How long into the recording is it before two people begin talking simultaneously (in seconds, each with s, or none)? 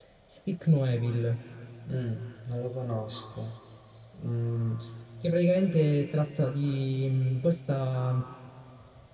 none